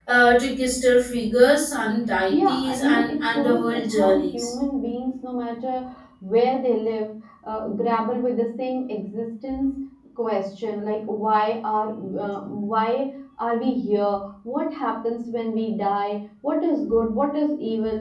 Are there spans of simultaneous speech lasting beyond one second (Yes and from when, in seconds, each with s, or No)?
Yes, from 2.3 s